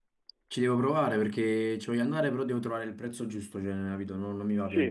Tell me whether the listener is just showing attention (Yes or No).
No